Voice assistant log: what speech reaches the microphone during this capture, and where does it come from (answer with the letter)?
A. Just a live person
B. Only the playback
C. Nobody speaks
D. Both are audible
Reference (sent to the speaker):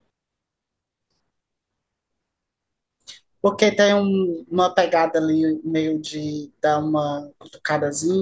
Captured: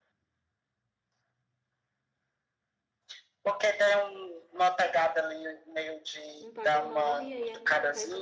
D